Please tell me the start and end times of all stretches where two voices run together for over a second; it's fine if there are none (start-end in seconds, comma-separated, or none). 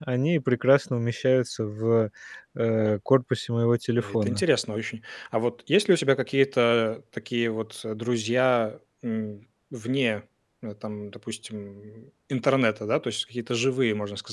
none